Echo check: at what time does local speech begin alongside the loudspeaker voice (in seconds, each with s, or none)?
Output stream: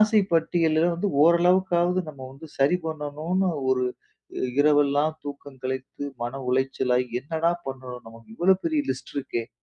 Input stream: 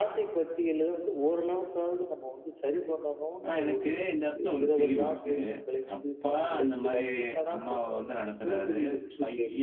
3.4 s